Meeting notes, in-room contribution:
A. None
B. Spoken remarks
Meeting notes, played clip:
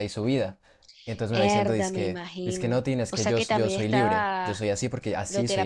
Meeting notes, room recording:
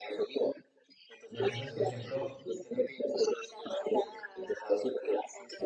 B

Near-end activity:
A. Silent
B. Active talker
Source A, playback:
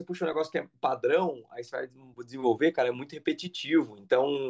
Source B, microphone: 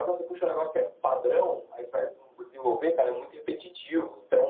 A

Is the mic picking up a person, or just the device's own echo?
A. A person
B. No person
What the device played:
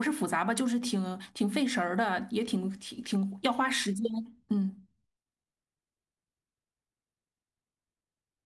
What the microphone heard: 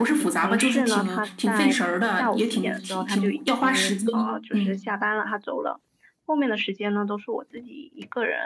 A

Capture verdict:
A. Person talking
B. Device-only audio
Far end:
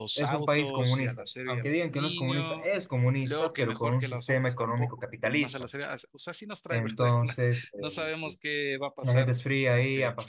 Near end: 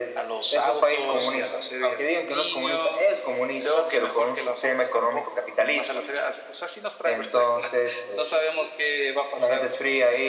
B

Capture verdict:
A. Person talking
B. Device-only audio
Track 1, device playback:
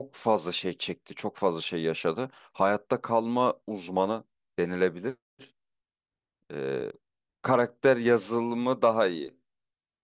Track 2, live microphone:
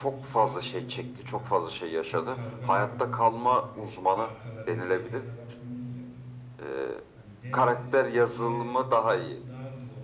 A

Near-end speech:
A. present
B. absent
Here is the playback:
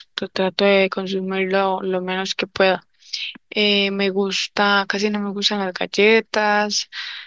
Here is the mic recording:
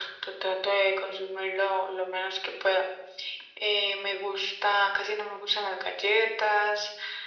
B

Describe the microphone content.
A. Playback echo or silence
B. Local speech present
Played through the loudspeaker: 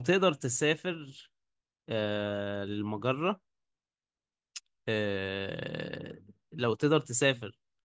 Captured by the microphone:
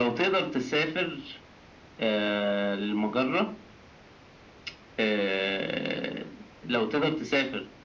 A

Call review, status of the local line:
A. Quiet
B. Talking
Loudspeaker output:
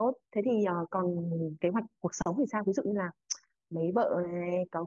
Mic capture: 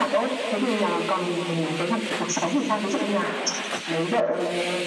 A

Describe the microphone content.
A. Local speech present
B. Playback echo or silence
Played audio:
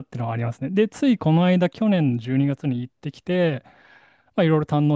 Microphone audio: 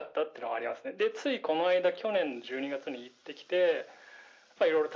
B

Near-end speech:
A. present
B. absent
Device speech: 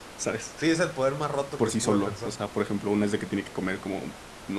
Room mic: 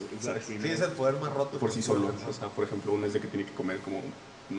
A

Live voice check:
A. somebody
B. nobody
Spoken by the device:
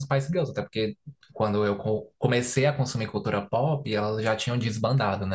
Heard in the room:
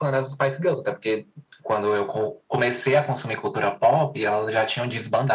B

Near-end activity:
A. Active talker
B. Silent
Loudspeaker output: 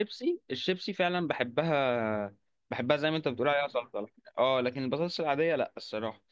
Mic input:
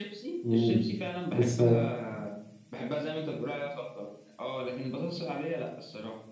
A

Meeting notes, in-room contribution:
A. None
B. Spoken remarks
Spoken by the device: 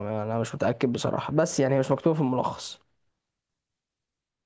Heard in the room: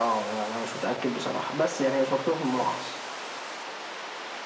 A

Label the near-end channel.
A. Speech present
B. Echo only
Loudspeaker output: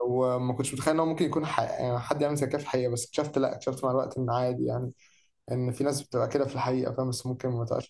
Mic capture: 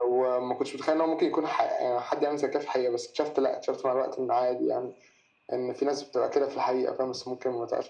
B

